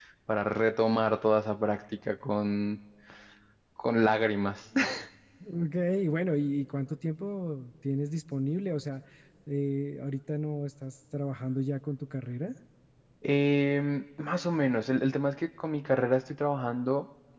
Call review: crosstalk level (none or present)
none